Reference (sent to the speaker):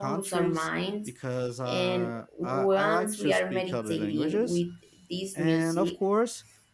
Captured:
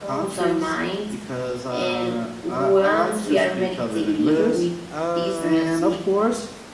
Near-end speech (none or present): present